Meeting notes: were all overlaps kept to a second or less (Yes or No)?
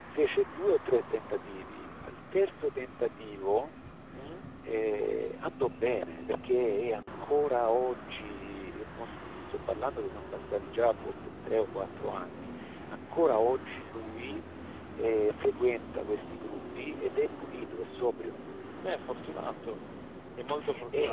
Yes